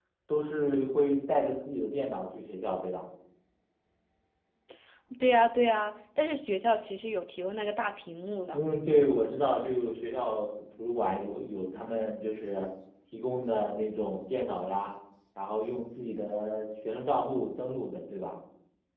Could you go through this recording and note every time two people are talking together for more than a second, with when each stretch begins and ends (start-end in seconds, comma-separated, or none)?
none